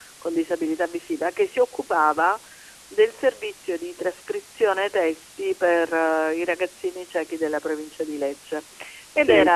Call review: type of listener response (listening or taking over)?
listening